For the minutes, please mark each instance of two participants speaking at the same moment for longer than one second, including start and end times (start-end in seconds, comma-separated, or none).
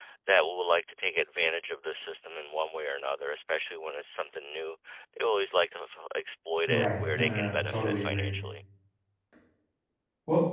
6.7-8.3